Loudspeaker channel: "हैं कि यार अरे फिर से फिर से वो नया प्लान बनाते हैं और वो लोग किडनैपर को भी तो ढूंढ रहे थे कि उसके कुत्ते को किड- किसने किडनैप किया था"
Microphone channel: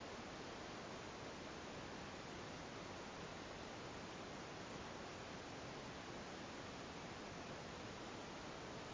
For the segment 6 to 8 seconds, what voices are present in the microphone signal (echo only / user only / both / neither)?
neither